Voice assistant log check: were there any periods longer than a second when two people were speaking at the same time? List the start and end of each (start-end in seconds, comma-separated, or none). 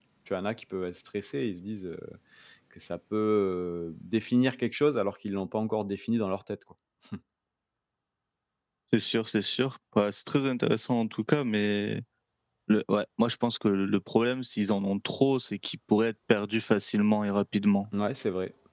none